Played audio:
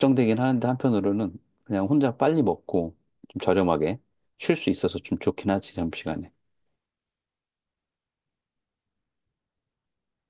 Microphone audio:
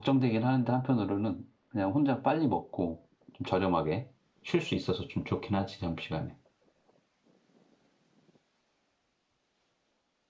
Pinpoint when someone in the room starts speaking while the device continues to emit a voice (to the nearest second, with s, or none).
none